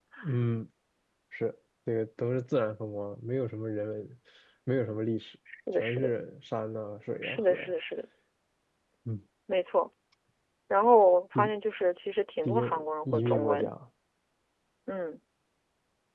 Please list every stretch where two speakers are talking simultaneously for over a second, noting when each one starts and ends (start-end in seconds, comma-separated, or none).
12.4-13.7